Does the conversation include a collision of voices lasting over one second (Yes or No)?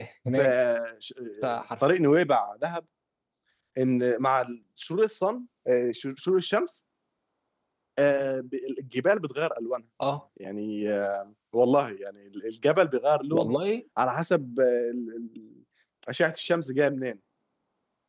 No